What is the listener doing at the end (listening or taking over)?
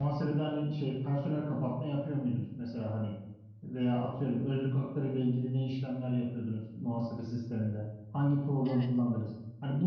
listening